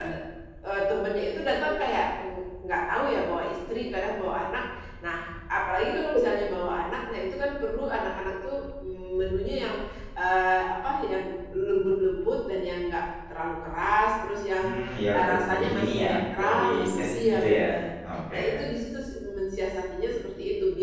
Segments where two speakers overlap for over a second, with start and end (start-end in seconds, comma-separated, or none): 15.2-17.6